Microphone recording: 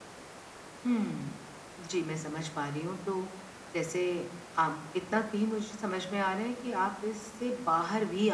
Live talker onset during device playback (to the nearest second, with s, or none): 1 s